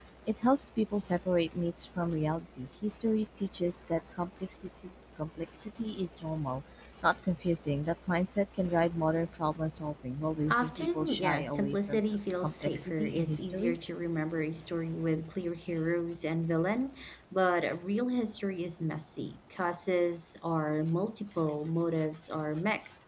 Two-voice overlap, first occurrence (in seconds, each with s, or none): 10.5 s